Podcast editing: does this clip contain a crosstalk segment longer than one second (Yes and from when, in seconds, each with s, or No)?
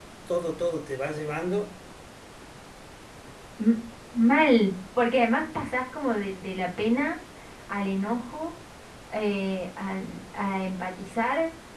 No